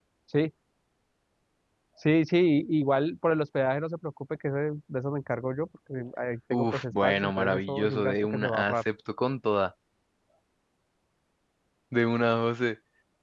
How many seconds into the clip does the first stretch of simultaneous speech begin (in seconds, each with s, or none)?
6.5 s